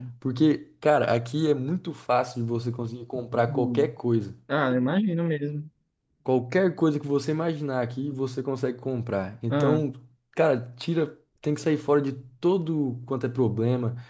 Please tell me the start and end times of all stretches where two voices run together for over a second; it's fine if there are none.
none

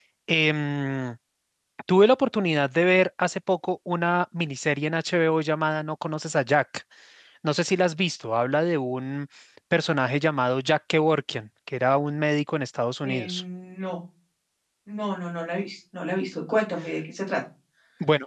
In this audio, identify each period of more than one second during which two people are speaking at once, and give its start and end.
none

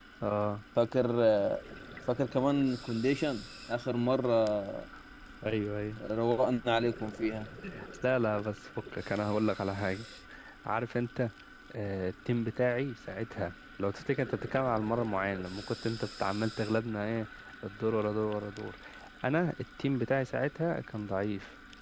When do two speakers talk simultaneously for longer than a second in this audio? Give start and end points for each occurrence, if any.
none

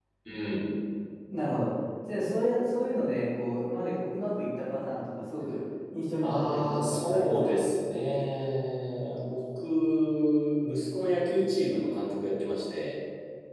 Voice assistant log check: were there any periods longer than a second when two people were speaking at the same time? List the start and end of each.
6.2-7.6

